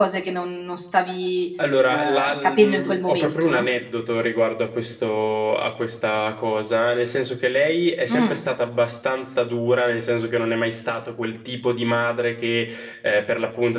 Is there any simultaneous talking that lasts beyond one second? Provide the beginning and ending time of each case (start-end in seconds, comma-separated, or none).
1.9-3.7